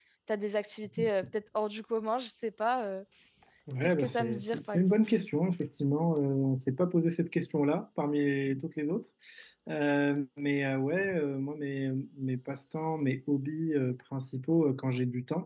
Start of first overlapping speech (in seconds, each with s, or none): 3.8 s